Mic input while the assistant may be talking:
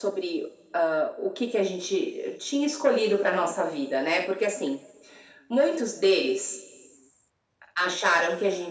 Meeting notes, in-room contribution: none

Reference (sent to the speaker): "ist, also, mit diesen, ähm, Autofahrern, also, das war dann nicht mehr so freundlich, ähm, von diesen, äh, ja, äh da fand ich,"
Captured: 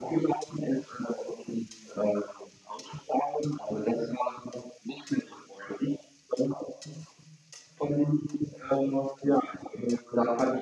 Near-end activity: none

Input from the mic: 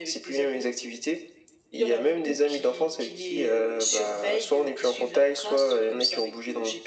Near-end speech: none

